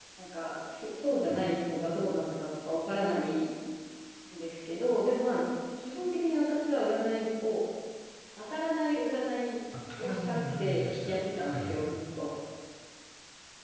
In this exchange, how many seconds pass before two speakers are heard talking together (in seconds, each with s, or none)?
10.0 s